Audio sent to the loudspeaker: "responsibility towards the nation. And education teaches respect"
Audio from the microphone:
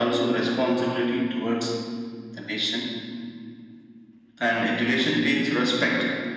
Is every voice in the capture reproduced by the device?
Yes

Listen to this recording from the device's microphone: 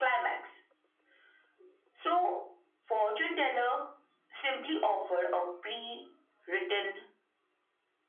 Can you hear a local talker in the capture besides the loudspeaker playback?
No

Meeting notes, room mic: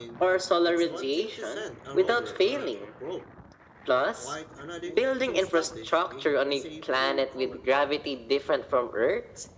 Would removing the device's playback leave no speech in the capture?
No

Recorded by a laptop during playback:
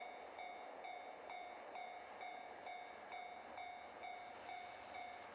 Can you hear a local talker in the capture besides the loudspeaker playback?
No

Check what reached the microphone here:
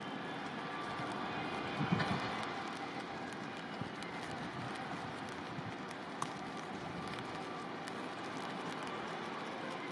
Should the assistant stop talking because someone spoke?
No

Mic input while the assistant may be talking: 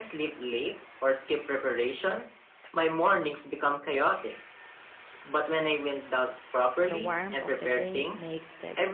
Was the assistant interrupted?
Yes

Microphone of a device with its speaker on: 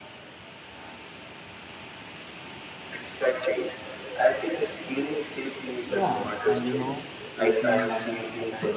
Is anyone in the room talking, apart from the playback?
Yes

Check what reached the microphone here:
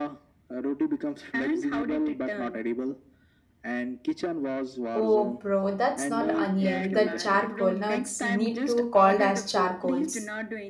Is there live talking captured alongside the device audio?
Yes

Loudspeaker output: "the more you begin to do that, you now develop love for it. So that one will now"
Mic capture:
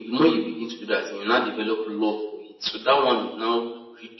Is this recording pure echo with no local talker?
Yes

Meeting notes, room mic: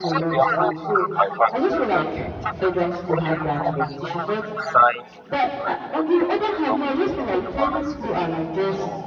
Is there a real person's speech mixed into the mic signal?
Yes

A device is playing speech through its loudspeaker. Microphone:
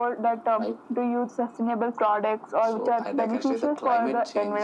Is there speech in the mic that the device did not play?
No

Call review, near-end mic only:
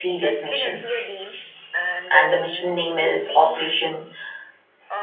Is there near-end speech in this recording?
Yes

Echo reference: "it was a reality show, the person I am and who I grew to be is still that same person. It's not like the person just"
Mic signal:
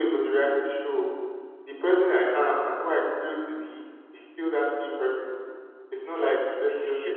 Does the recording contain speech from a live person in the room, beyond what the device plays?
Yes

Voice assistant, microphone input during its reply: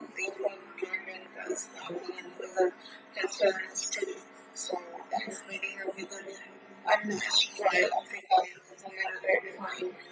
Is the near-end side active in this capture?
No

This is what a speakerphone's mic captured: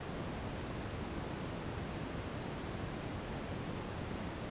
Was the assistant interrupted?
No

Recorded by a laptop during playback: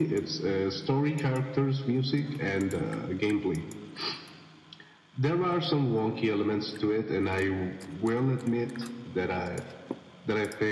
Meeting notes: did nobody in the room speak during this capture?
Yes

